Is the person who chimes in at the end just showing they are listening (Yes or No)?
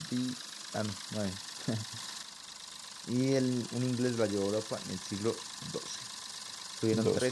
Yes